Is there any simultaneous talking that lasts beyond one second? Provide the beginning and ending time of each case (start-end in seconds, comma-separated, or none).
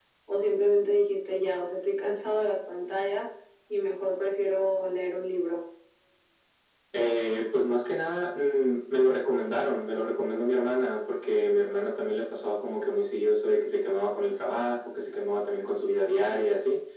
none